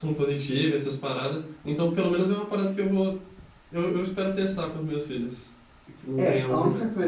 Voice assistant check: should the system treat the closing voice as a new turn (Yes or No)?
Yes